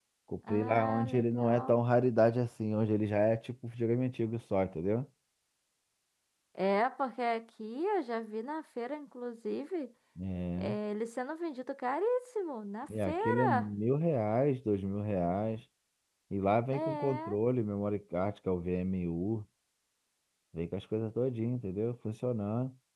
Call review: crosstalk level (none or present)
present